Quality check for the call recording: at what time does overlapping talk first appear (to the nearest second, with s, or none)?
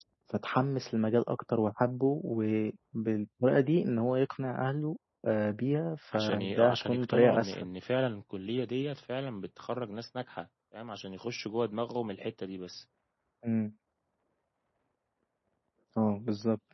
6 s